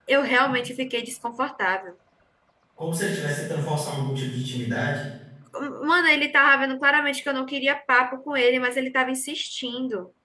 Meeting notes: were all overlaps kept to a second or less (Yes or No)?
Yes